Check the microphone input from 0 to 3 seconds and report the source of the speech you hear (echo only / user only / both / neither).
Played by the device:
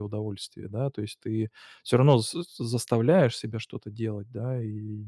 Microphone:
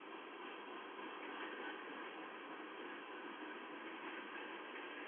neither